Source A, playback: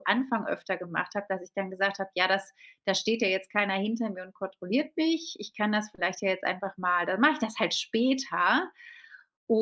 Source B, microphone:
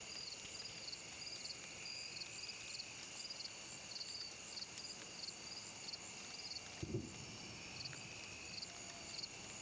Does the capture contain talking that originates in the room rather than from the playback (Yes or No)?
No